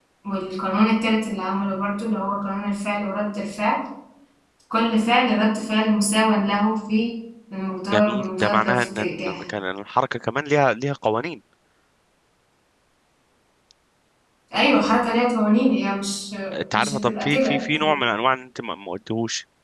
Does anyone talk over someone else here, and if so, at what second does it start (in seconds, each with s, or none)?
7.9 s